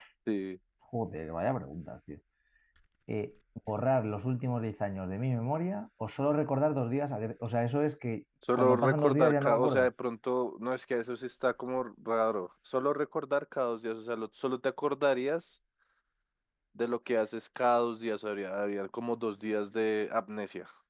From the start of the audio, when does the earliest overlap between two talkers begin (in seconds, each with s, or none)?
8.5 s